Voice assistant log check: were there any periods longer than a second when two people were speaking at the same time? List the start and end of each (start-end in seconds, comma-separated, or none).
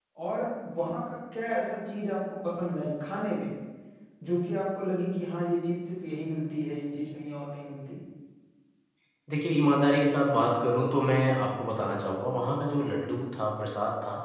none